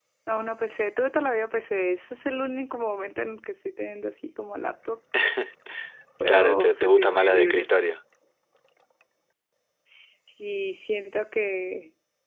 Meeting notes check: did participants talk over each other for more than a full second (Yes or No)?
Yes